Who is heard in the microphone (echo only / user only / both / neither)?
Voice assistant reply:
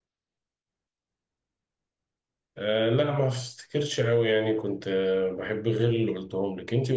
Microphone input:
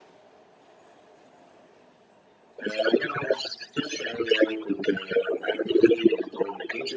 echo only